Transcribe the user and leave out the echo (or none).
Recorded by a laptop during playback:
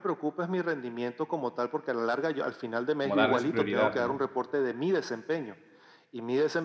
como darles prioridad, ¿no?